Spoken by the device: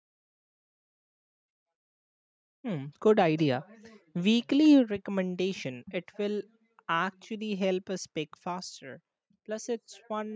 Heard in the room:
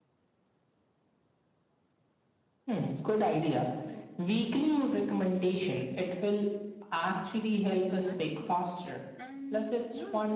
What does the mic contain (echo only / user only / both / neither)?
both